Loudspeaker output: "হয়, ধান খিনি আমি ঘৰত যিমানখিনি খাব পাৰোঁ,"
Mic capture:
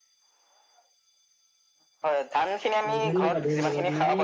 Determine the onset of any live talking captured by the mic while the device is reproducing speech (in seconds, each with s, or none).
2.9 s